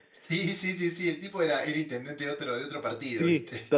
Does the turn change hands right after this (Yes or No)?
Yes